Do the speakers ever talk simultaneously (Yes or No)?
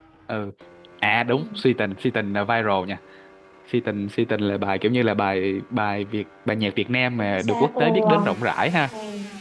Yes